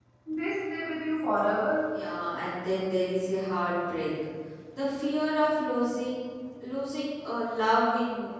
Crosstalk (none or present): none